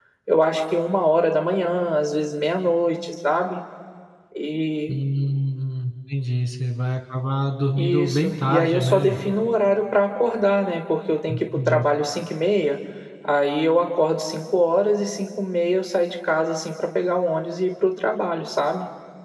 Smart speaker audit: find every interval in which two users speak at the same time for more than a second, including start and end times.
7.7-9.2

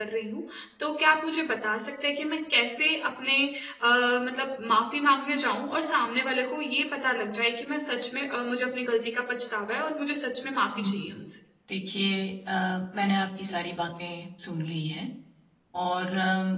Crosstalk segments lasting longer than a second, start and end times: none

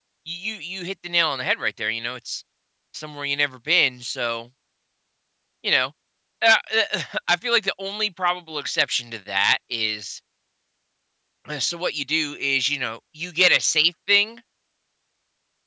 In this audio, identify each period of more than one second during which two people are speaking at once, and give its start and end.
none

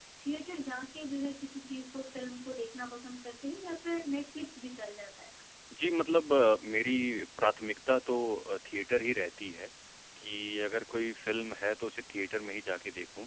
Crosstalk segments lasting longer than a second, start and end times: none

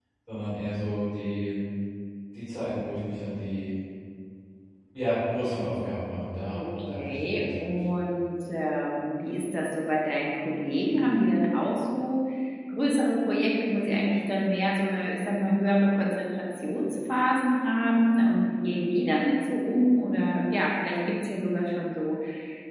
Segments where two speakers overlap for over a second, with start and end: 6.6-7.8

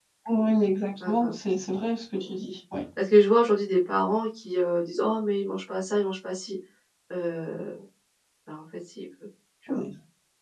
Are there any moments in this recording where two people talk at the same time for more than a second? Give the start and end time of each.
none

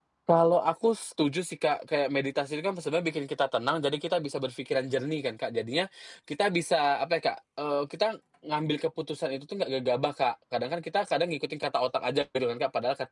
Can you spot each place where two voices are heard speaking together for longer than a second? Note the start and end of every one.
none

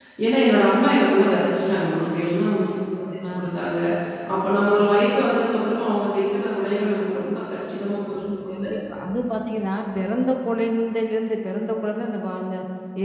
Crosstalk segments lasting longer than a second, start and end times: none

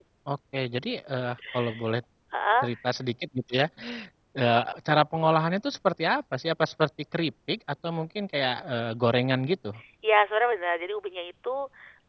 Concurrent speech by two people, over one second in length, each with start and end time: none

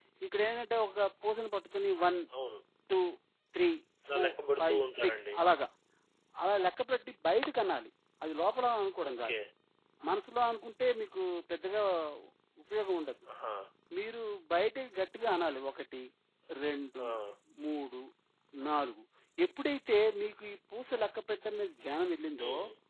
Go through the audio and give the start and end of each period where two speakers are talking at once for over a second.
4.1-5.4

